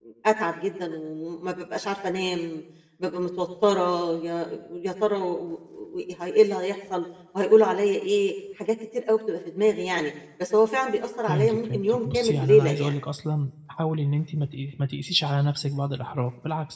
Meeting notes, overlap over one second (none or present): present